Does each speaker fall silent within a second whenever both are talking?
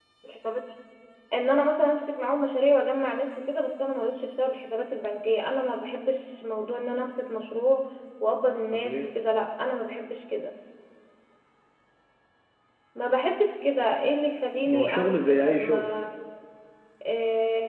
No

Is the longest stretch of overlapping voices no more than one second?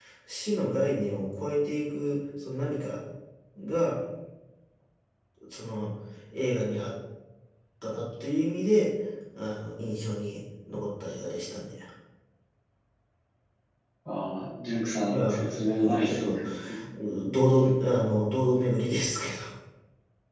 No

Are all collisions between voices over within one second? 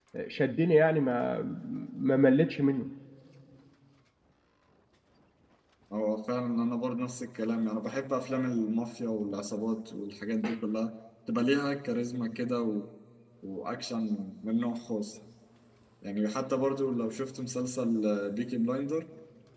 Yes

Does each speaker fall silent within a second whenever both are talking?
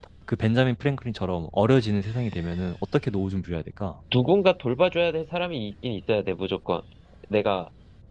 Yes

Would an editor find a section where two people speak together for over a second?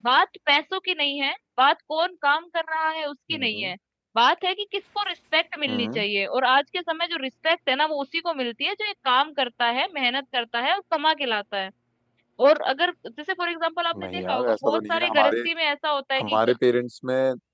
Yes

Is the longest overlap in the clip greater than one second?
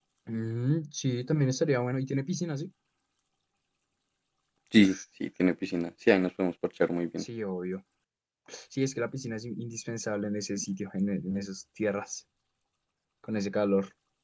No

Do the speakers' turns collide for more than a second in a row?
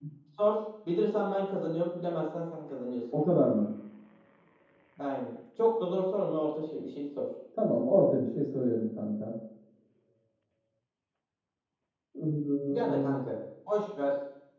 No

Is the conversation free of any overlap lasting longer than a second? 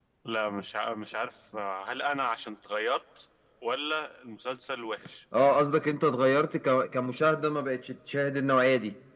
Yes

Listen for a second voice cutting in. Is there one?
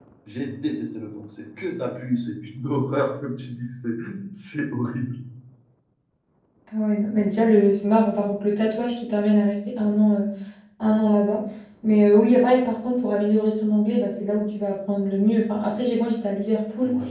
No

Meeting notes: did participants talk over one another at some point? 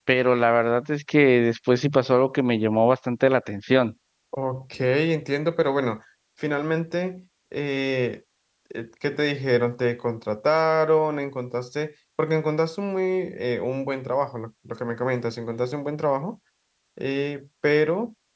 No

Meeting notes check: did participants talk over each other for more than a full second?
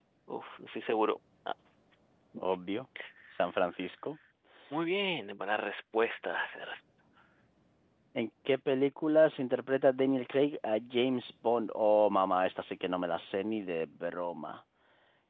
No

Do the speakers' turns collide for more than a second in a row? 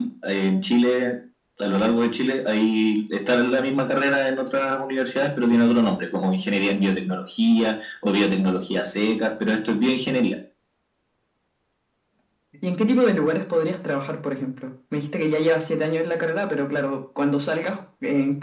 No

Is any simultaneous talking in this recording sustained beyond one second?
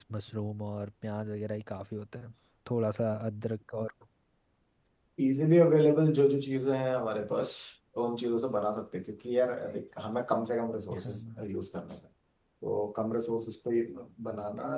No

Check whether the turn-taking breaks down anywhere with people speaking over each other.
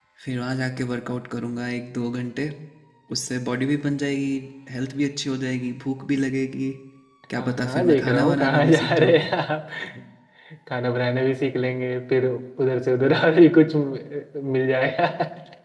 Yes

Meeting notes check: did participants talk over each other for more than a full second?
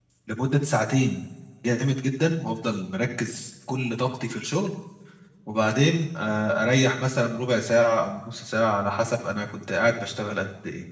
No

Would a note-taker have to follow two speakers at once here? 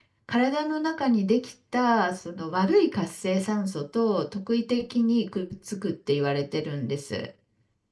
No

